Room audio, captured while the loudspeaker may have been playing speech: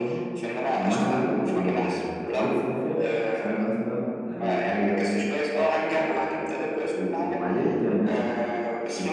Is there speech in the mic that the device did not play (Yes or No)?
Yes